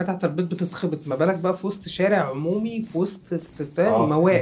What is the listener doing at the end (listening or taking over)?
taking over